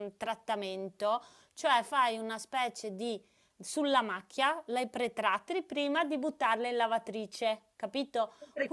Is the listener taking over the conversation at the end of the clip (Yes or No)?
No